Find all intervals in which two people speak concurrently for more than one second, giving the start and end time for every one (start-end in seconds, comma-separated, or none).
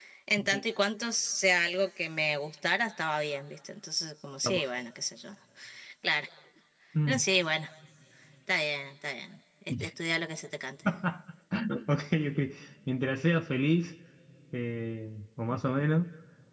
none